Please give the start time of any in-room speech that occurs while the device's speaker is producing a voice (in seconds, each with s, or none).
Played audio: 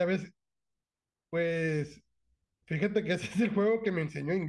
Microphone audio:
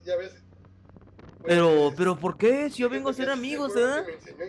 1.4 s